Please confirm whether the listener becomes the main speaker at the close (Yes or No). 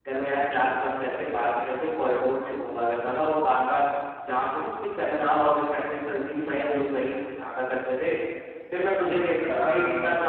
No